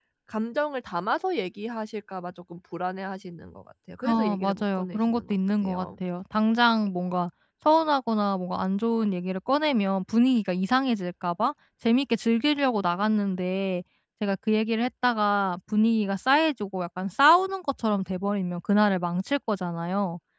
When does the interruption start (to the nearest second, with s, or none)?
4 s